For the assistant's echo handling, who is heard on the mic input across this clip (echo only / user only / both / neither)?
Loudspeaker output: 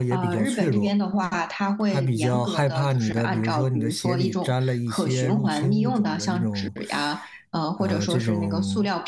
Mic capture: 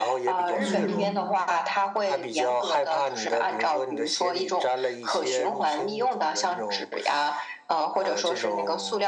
both